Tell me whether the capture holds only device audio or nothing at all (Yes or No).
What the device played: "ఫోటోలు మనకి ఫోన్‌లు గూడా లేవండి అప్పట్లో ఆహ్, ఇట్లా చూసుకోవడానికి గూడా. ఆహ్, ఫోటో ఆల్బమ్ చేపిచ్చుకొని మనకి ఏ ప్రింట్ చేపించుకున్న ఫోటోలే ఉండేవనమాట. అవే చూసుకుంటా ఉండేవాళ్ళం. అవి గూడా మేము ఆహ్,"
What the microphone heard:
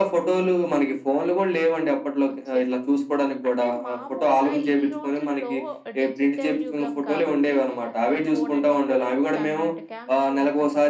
No